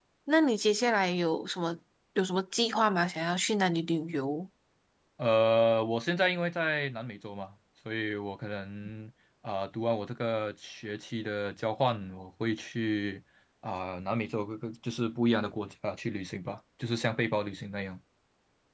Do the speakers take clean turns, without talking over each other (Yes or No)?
Yes